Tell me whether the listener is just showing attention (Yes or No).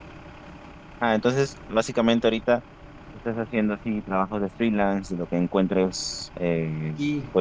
Yes